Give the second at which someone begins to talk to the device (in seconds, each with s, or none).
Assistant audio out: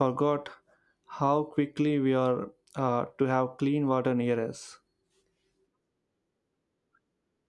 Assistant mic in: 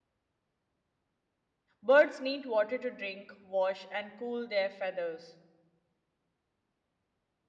1.8 s